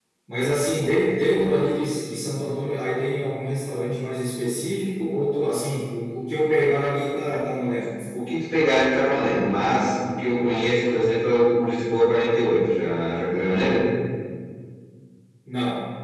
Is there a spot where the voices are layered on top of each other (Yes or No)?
No